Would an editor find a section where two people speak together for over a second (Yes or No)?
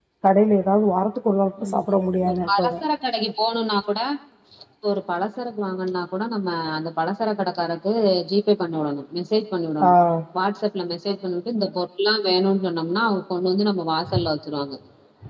No